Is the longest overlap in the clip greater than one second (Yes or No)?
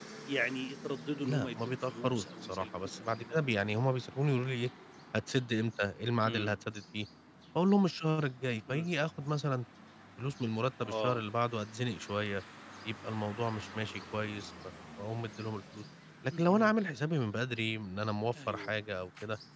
Yes